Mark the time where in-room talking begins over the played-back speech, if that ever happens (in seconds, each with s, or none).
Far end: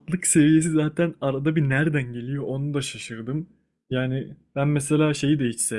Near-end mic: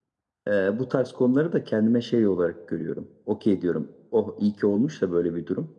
0.5 s